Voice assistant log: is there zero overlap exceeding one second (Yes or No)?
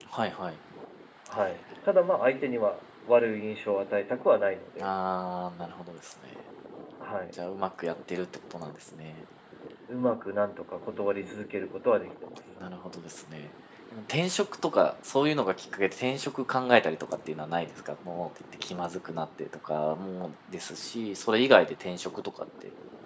Yes